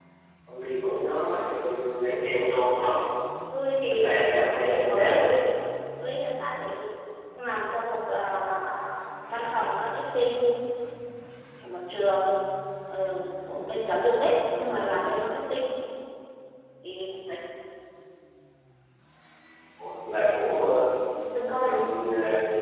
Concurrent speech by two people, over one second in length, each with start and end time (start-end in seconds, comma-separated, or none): 3.8-5.2